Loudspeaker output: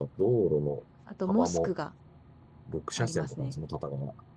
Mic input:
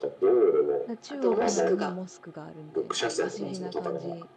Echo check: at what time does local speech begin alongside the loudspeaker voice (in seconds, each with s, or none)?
0.9 s